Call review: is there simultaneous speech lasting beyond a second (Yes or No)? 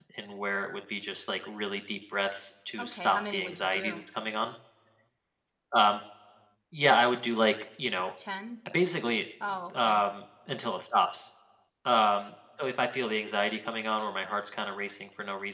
Yes